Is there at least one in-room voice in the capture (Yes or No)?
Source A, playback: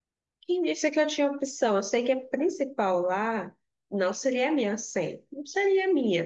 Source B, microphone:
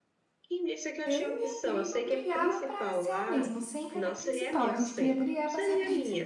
Yes